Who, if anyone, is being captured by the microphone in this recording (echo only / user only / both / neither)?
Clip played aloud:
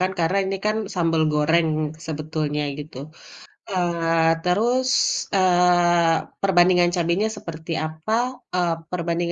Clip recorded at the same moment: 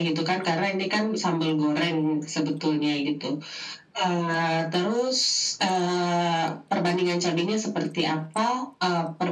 echo only